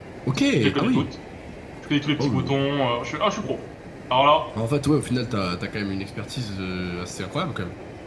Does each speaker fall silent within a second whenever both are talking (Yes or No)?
Yes